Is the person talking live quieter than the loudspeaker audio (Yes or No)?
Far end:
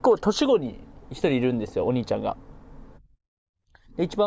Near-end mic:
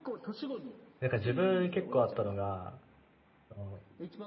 No